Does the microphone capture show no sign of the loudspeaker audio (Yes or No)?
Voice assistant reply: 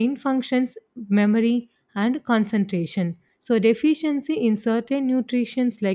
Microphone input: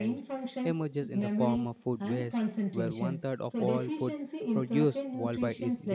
No